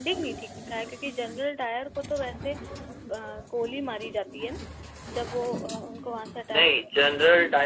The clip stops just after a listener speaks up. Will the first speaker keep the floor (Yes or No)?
No